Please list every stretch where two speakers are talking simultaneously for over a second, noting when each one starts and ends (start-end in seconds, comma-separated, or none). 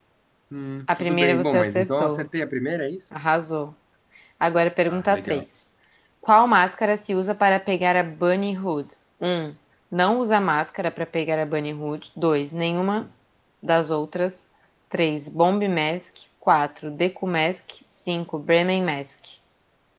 0.9-2.3